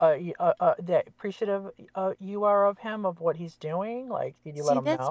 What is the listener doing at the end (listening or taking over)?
taking over